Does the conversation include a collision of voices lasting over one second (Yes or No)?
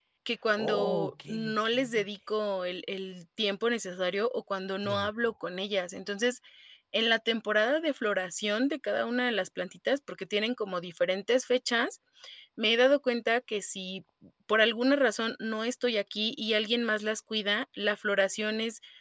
Yes